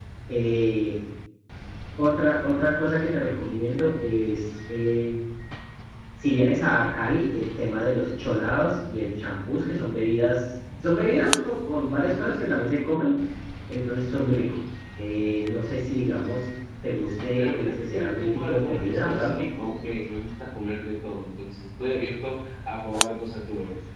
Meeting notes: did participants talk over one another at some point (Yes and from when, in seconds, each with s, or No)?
Yes, from 17.4 s